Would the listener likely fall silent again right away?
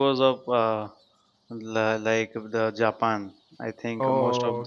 Yes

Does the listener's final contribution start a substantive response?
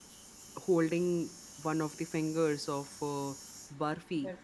No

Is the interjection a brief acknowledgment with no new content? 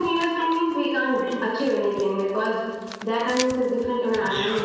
No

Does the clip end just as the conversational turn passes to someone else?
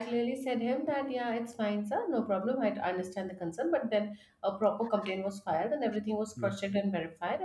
No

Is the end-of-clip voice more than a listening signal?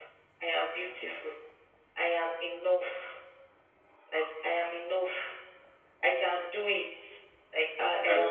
No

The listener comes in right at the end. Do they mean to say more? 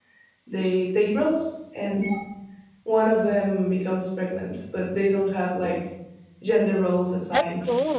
No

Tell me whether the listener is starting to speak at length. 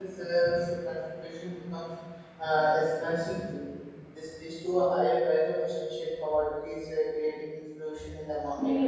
No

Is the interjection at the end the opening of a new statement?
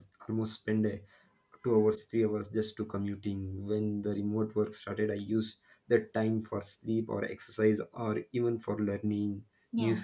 No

